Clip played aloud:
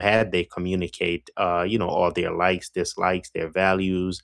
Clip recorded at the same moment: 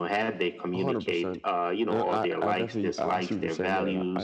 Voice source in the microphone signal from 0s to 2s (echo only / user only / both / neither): both